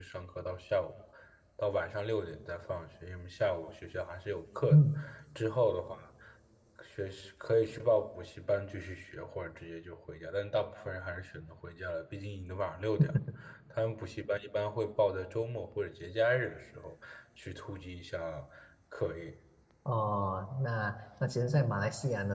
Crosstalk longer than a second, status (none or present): none